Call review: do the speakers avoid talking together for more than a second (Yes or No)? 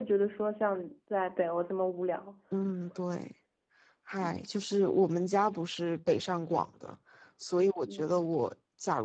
Yes